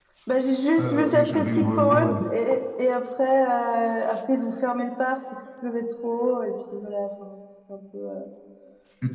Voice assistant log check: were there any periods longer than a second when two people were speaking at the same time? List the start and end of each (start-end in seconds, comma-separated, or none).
0.8-2.1